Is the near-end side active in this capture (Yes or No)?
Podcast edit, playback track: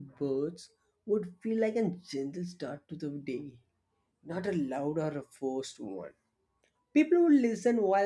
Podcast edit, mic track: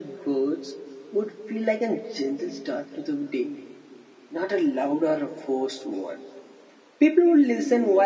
No